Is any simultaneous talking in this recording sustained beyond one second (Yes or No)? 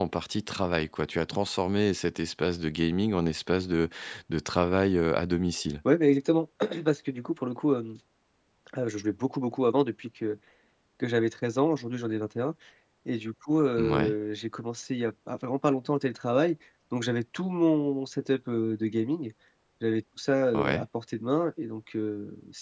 No